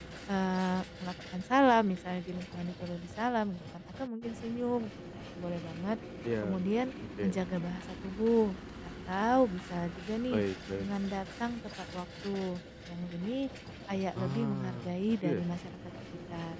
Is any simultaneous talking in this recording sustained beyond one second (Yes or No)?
Yes